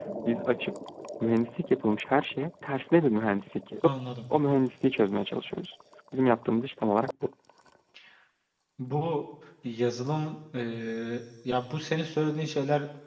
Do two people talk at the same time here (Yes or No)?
No